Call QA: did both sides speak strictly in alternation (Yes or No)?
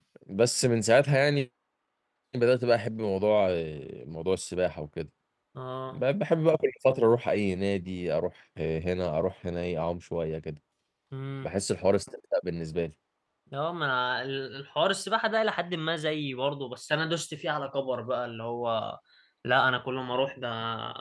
Yes